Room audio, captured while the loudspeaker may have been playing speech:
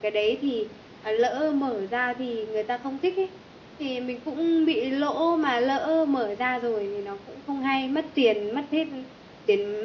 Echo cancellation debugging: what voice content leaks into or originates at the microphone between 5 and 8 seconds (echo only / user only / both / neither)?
user only